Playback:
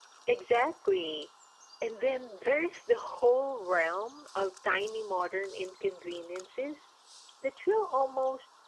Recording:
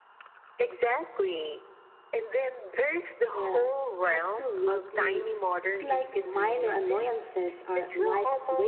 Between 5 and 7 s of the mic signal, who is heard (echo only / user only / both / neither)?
both